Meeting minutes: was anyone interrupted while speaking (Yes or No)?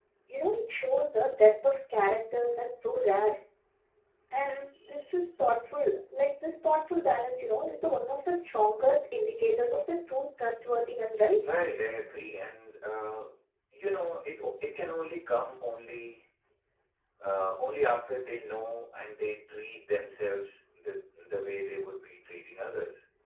No